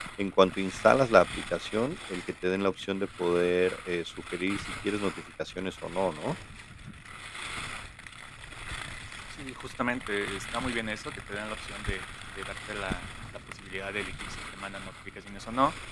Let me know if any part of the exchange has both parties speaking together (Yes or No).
No